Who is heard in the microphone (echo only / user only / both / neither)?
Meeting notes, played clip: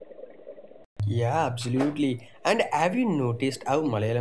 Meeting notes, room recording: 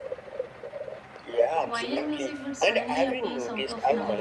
both